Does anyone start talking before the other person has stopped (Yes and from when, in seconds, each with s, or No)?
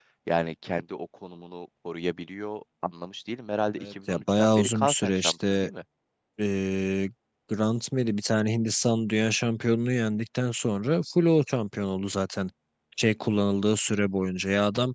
Yes, from 3.8 s